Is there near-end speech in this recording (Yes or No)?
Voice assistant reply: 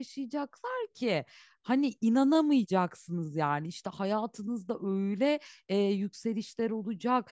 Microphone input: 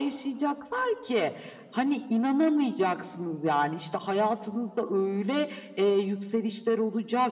No